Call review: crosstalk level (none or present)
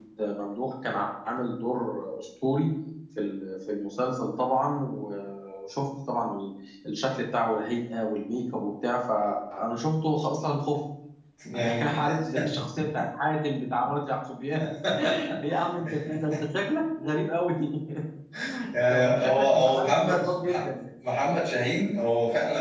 present